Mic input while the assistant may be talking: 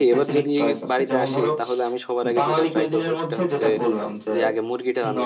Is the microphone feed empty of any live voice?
No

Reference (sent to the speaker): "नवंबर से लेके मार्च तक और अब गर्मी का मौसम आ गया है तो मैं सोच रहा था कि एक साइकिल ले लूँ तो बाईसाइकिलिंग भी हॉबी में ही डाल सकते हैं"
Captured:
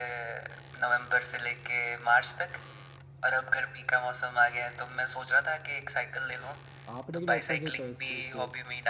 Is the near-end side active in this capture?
Yes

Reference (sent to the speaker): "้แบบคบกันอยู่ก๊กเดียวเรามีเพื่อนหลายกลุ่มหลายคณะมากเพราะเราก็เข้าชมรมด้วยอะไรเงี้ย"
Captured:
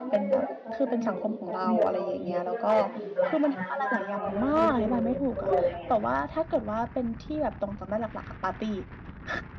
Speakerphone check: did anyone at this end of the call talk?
Yes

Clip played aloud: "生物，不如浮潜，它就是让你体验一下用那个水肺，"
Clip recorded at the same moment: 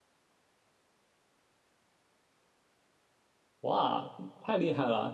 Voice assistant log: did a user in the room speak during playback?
Yes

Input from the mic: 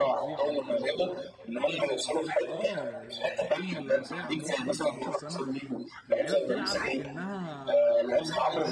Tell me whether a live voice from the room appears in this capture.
Yes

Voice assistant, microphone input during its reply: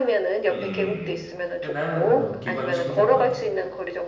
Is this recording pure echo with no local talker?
No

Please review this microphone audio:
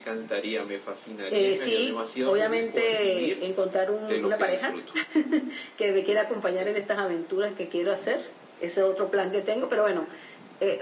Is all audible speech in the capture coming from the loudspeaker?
Yes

